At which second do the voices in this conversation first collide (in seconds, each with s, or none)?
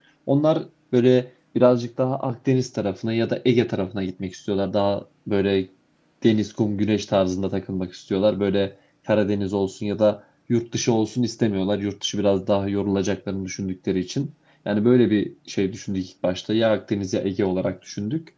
none